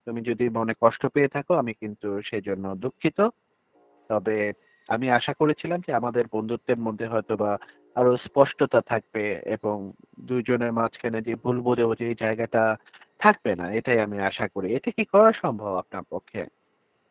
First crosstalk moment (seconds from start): none

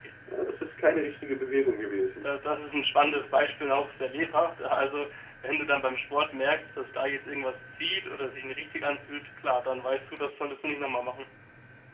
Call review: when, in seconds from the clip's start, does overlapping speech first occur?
none

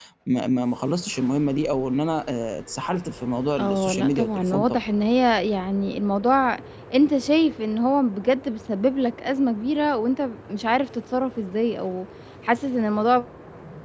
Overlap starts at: 4 s

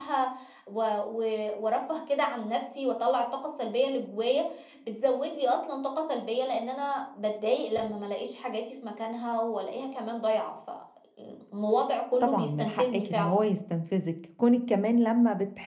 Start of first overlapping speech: 12 s

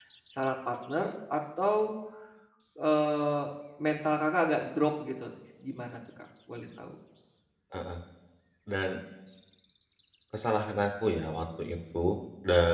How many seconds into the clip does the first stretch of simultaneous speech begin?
none

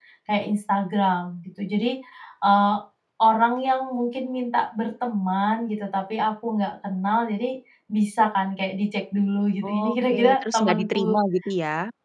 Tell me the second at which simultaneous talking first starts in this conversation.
10 s

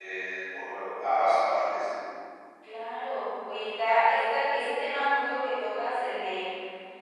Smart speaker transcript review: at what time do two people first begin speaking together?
none

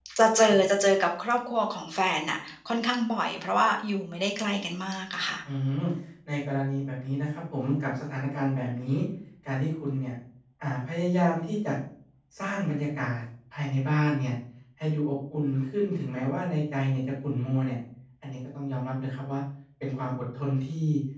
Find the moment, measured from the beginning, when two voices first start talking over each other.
none

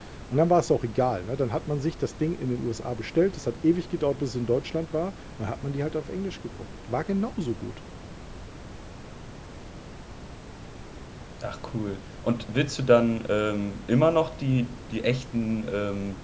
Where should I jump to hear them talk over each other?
none

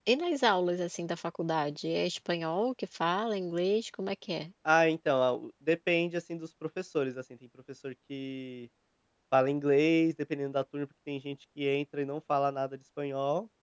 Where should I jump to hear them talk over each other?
none

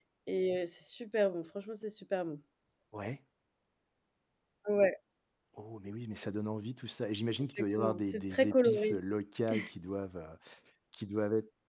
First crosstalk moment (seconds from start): 8 s

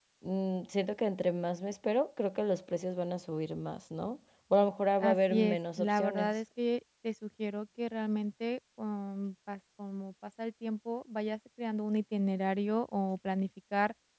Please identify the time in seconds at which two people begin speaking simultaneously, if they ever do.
5 s

